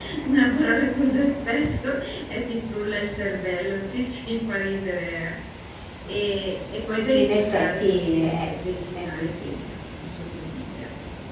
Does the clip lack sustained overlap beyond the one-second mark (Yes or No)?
No